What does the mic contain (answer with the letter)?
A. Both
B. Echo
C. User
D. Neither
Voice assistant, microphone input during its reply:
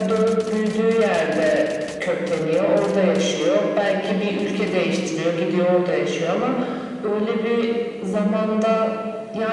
B